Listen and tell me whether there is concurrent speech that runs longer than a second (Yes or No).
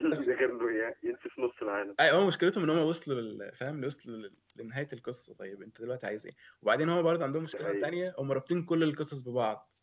No